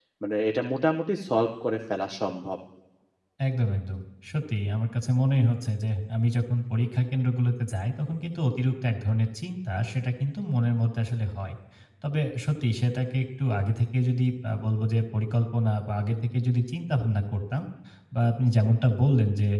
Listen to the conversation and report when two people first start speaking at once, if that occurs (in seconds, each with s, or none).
none